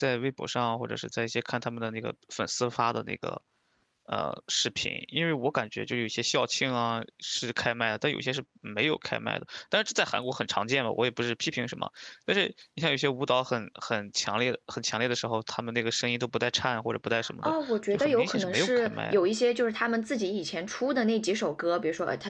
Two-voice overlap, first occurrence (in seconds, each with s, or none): 17.4 s